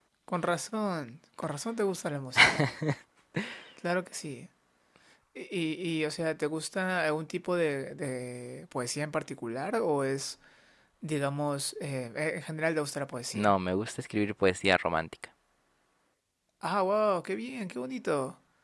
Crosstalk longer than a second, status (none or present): none